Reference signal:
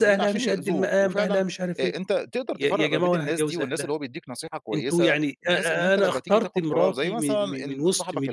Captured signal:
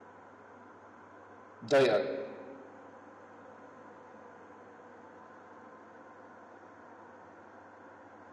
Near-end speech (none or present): present